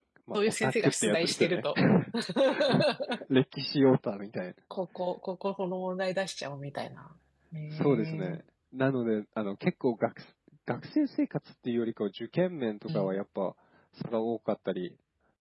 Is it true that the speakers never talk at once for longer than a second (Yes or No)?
No